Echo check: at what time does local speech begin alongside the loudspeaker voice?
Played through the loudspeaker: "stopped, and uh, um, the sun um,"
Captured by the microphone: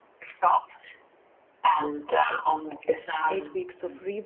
3.3 s

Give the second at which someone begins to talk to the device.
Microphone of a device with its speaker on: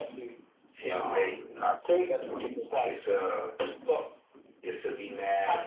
0.7 s

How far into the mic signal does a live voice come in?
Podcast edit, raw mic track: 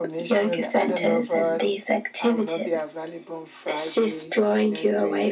none

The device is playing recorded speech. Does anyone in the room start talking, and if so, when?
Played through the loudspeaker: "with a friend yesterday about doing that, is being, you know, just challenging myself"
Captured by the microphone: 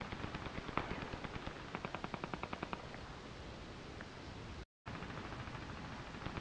none

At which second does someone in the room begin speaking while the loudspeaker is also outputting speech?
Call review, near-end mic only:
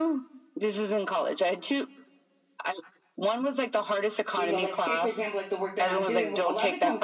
4.3 s

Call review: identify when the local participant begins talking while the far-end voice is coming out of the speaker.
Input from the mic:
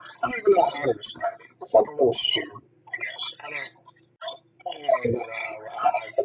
none

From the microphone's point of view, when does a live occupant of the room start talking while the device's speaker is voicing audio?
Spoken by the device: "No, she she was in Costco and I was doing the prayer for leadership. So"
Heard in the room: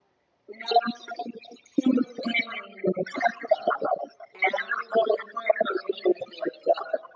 none

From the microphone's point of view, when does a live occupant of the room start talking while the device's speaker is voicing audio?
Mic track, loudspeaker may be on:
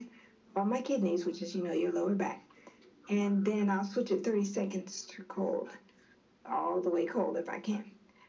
none

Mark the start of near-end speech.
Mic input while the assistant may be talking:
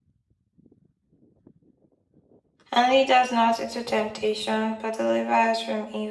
2.7 s

